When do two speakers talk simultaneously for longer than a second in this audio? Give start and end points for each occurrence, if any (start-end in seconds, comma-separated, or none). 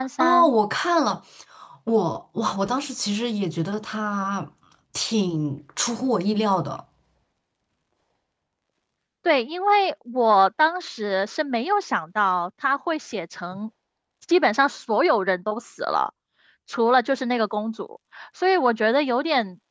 none